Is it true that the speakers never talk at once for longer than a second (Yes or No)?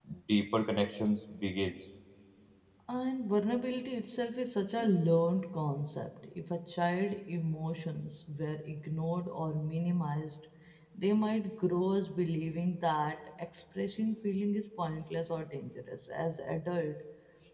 Yes